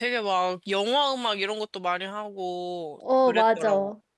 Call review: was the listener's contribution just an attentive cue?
No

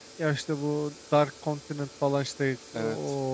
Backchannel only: Yes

